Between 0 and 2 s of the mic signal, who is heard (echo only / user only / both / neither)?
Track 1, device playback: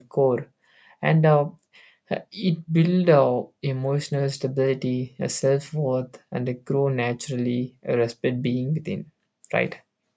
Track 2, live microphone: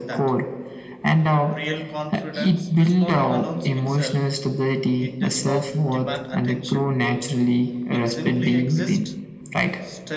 both